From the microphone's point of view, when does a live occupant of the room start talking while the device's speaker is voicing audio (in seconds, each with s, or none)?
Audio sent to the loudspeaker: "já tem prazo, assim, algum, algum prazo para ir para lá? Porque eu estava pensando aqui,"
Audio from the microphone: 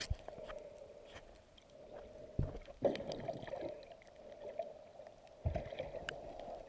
none